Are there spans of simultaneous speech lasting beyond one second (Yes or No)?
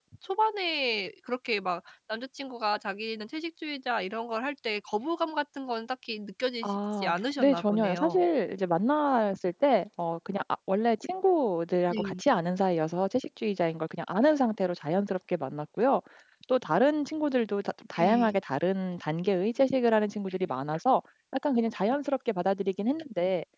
Yes